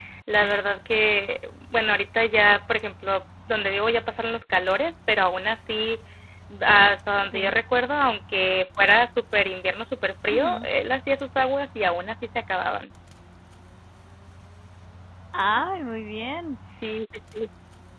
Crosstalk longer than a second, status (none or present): none